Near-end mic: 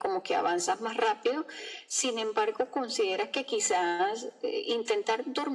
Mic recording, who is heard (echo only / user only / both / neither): echo only